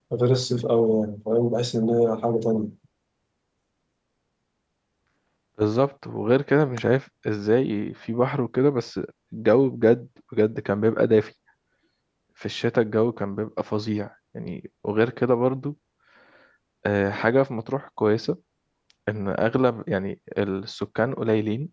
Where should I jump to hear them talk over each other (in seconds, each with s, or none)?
none